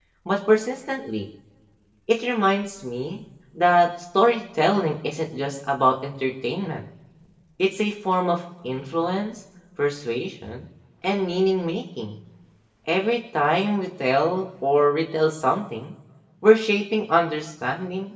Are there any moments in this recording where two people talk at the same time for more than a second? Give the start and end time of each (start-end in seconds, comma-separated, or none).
none